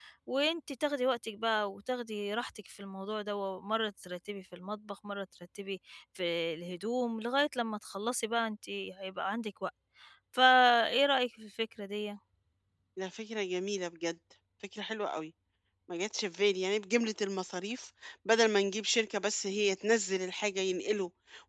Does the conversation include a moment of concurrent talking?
No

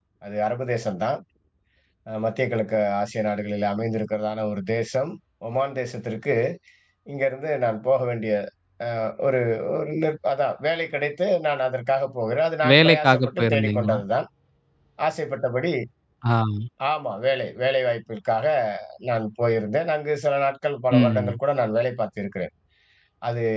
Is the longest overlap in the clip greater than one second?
Yes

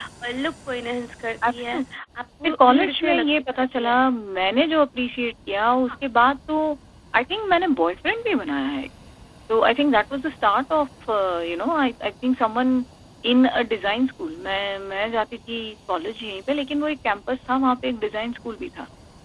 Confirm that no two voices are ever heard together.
No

